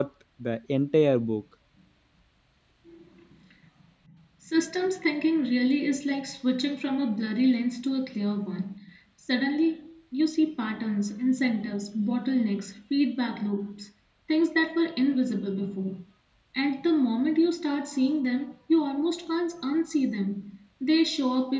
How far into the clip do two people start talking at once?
none

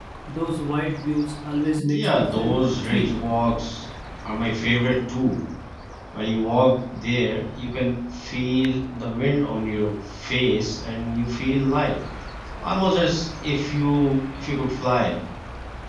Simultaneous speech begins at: 1.8 s

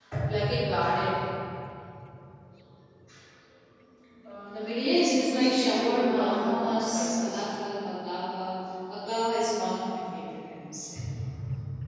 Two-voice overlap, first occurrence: 4.8 s

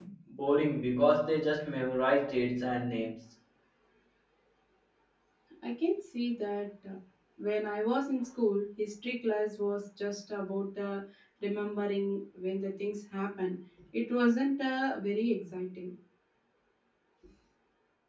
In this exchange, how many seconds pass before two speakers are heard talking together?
none

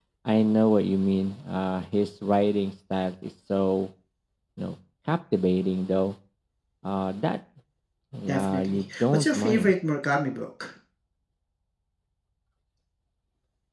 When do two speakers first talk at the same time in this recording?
8.3 s

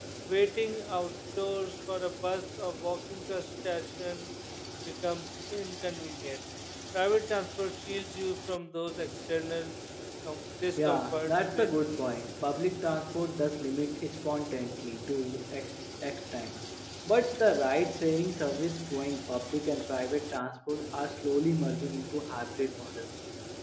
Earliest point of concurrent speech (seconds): 10.8 s

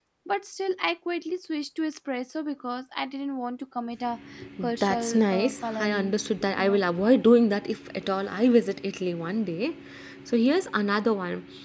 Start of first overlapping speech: 4.8 s

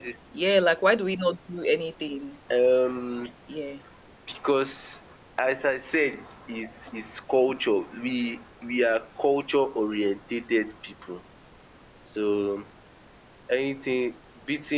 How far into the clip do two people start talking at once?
none

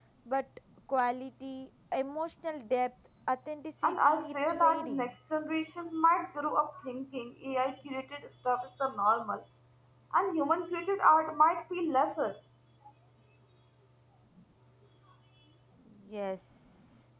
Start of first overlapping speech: 3.8 s

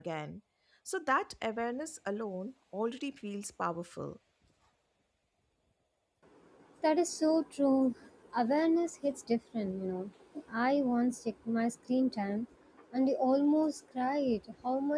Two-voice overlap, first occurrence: none

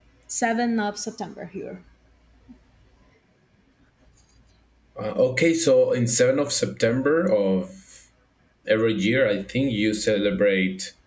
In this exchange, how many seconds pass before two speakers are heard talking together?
none

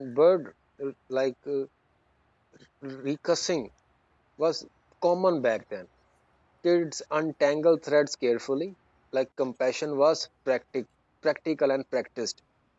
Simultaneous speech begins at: none

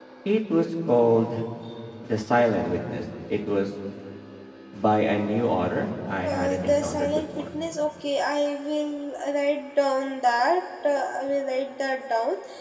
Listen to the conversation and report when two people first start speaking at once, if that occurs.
6.2 s

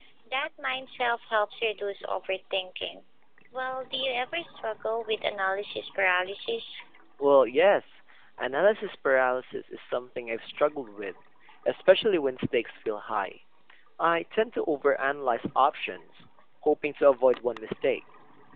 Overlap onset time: none

